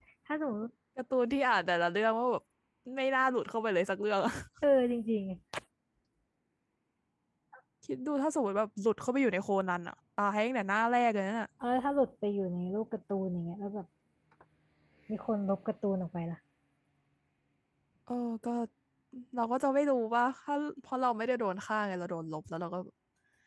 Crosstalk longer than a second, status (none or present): none